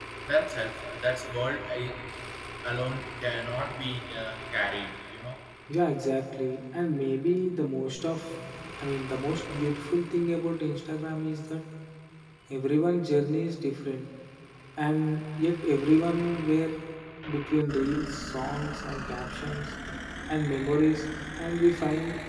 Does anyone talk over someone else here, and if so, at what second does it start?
none

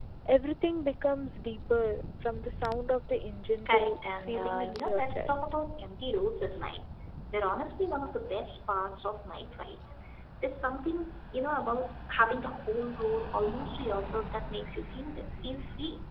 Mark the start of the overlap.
4 s

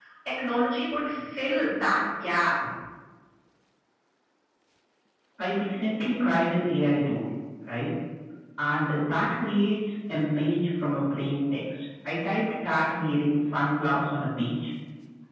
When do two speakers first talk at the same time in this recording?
none

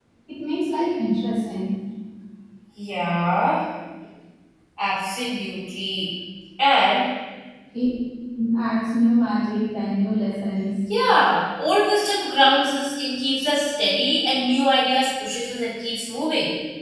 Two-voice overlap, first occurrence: none

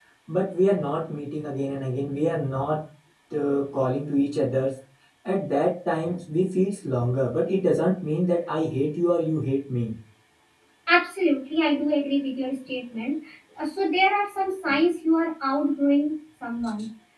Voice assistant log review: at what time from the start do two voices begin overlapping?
none

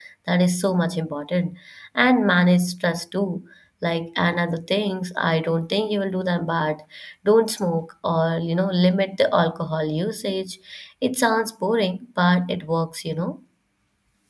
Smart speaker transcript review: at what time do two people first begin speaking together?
none

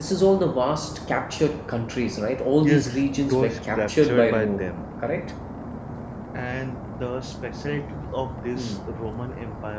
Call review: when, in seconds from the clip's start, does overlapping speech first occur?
3 s

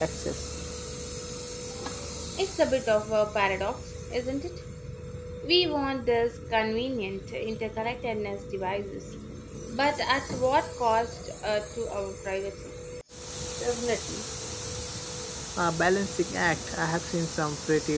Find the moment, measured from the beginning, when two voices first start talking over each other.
none

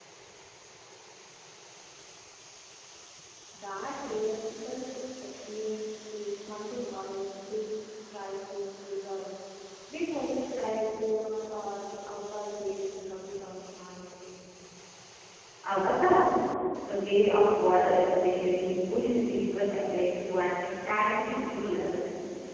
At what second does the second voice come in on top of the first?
none

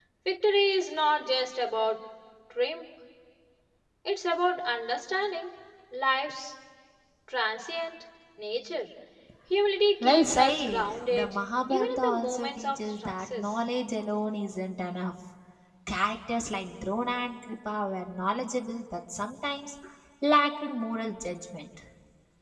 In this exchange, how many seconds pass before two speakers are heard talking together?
10 s

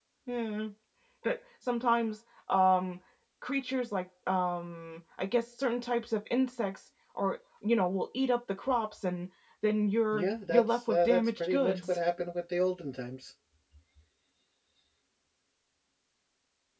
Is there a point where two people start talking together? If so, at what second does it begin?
10 s

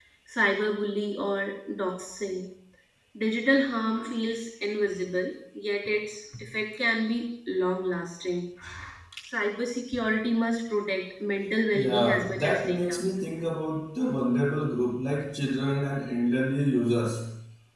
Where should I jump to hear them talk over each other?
12 s

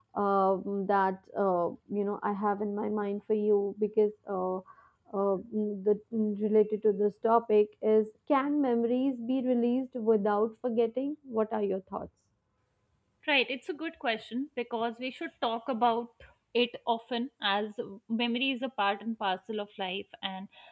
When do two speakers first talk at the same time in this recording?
none

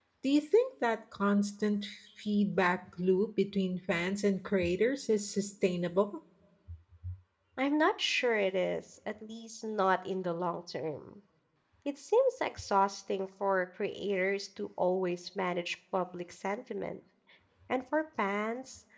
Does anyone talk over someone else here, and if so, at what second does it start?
none

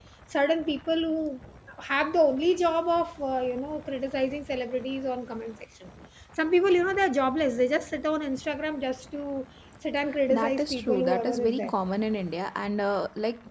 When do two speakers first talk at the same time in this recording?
10 s

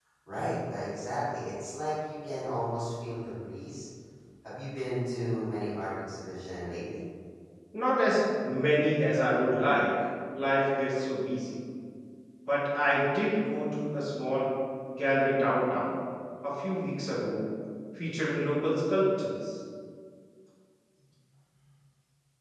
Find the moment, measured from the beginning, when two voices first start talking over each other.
none

